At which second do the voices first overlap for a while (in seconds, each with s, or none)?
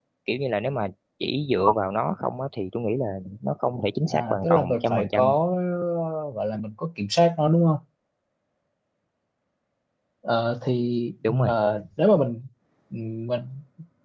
4.1 s